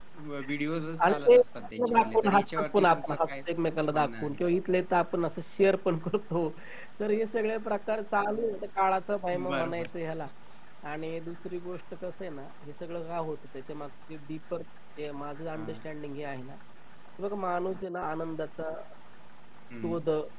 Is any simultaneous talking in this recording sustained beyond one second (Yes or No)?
Yes